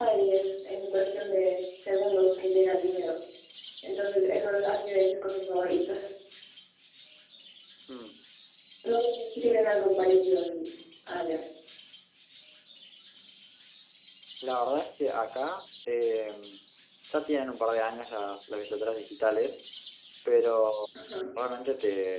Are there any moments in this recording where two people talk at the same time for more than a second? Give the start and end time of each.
none

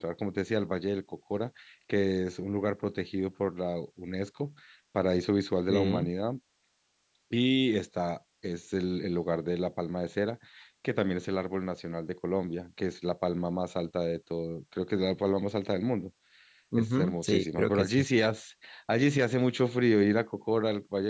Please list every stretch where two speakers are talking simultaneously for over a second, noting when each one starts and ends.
16.8-18.1

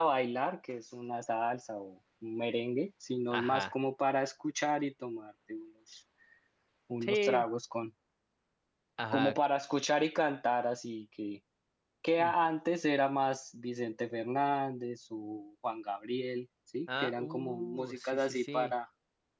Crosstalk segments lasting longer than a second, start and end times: 17.0-18.7

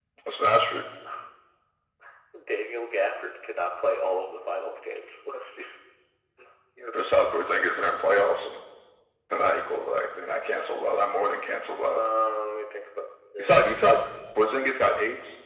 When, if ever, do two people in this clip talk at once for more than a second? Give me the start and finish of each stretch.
none

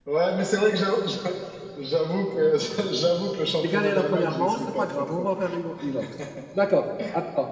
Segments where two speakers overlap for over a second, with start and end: 3.5-5.3

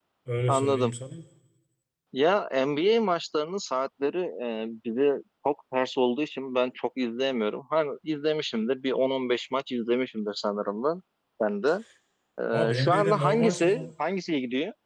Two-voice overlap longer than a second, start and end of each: 12.7-13.9

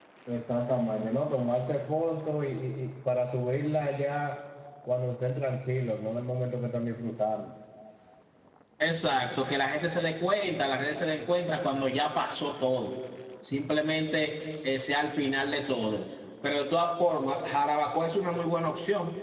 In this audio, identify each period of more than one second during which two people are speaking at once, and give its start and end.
none

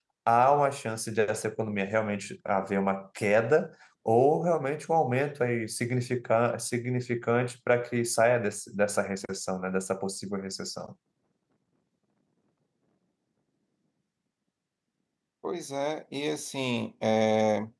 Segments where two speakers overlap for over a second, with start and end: none

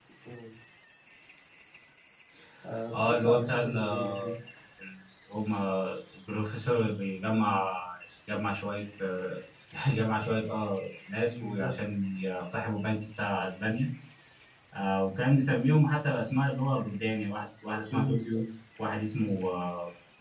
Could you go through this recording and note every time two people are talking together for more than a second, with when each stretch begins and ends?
2.9-4.3

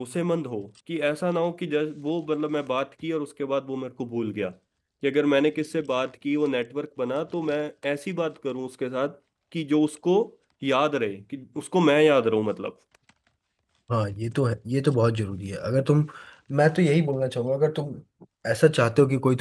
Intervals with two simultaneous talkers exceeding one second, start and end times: none

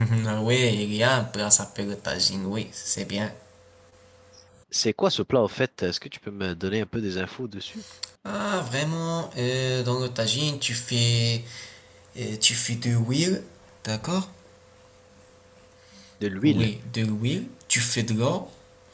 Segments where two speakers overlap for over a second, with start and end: none

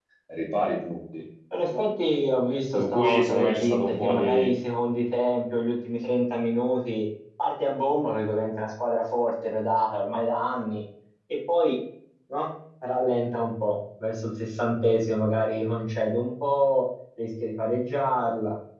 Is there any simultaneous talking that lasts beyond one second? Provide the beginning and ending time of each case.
2.8-4.5

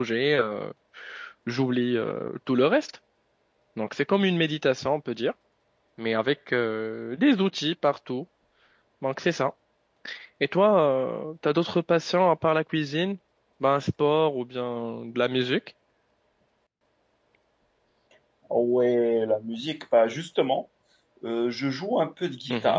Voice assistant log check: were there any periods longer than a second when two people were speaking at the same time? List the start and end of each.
none

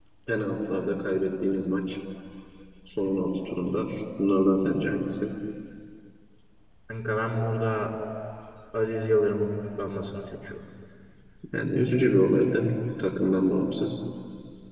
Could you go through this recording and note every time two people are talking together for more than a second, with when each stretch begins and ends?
none

